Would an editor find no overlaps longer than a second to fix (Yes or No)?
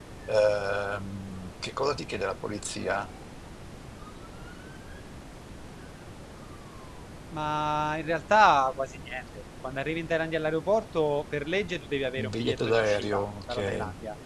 No